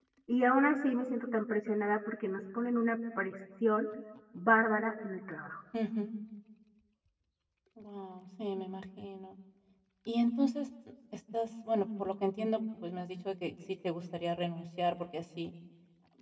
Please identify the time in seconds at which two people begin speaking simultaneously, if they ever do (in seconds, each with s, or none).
none